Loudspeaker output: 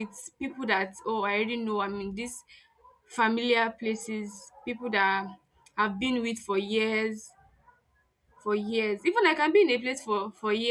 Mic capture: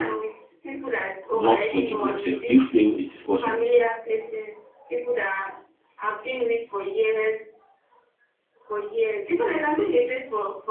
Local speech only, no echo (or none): not forgive themselves? Do you feel it is possible?